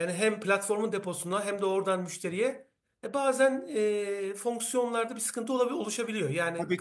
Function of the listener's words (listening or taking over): taking over